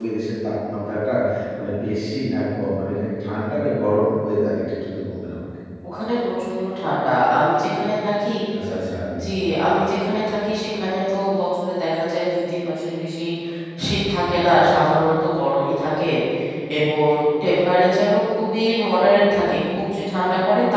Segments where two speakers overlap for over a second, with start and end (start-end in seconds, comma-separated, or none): none